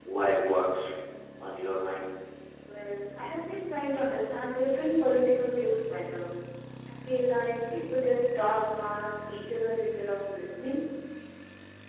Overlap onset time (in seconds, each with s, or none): none